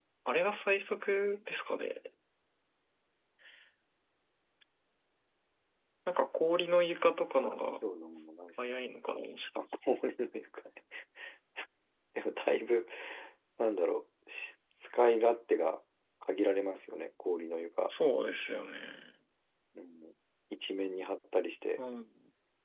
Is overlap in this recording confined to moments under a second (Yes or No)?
Yes